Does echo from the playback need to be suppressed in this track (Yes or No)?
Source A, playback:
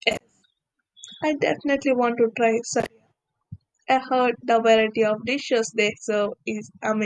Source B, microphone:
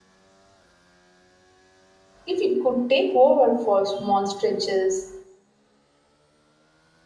No